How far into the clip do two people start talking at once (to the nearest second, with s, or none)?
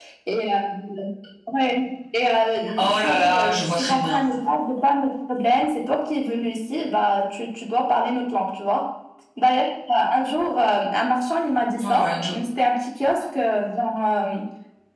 3 s